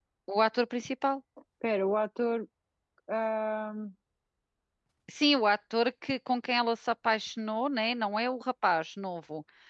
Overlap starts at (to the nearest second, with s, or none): none